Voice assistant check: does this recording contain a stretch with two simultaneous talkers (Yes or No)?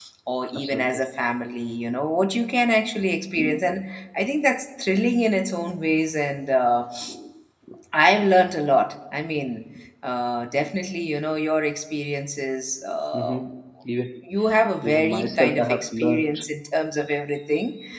Yes